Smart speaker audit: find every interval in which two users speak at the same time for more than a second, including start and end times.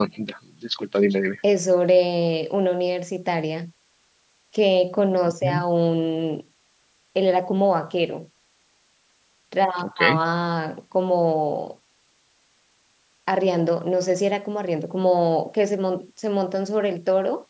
none

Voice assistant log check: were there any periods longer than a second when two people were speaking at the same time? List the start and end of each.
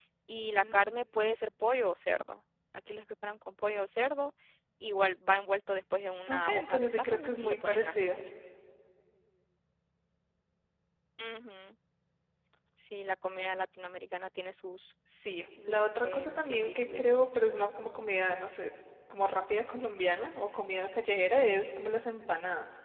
6.3-8.2, 15.7-17.2

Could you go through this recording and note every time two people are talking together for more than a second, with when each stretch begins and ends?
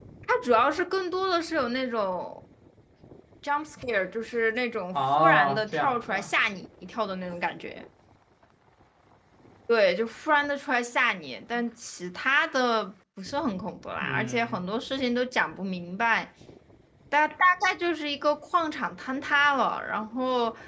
4.9-6.3

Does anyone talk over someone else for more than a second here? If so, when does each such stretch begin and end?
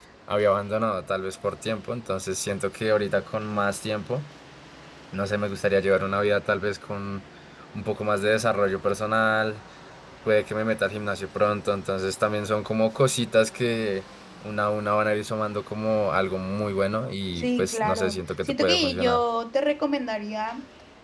17.4-19.2

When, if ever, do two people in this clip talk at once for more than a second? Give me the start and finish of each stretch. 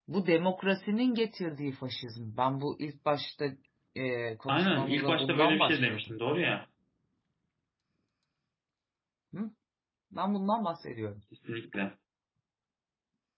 4.5-6.0

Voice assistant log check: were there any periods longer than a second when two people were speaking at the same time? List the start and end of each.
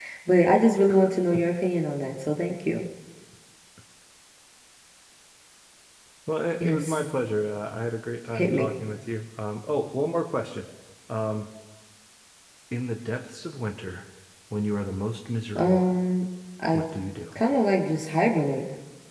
none

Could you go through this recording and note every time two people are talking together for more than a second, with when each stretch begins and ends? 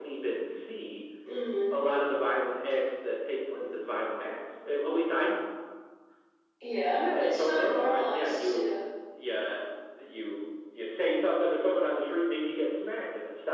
6.9-8.7

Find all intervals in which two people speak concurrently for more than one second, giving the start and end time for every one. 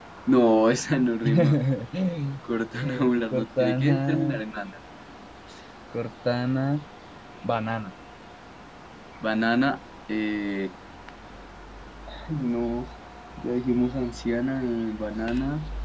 2.8-4.4

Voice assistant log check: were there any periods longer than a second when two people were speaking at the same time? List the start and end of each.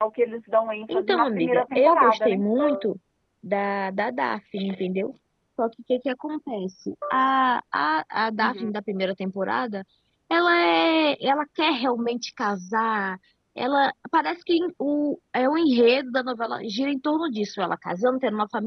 0.9-2.4

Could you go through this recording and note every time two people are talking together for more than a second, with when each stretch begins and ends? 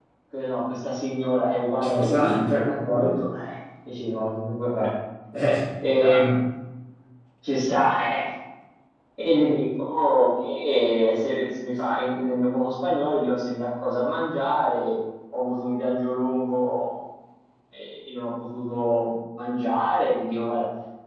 1.9-3.1

